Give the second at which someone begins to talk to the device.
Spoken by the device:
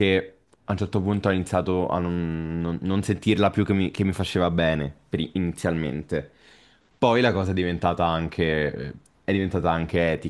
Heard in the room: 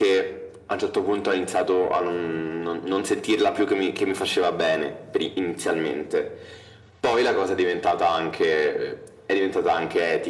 none

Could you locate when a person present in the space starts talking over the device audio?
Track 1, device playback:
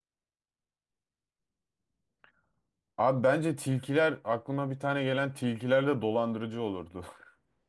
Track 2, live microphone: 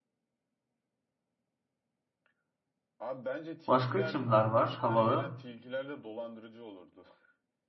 3.7 s

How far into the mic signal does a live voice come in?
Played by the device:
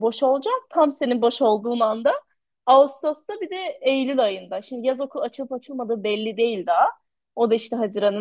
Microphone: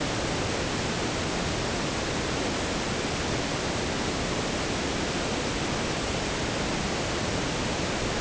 none

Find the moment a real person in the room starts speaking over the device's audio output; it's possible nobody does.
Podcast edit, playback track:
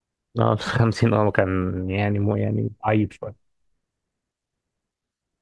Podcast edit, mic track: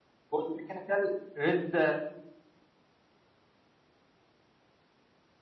0.3 s

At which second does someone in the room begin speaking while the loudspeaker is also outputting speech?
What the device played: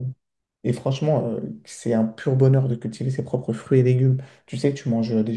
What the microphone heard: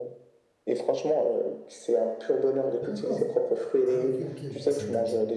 2.8 s

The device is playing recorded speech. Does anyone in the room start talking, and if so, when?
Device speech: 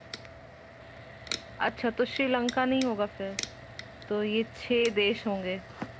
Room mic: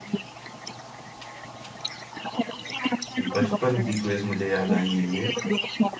3.2 s

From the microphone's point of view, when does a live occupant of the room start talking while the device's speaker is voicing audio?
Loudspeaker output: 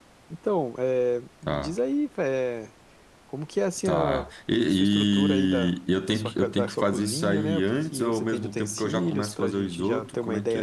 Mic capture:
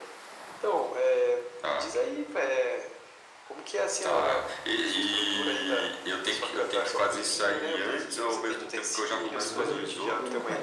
9.3 s

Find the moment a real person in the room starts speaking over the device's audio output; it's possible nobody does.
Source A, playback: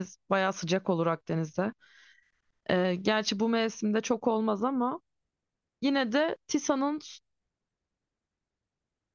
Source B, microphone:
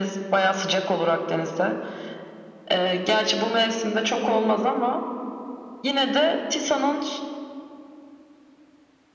none

